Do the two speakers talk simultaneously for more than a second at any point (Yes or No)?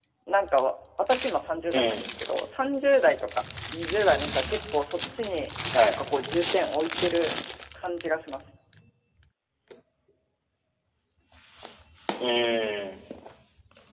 No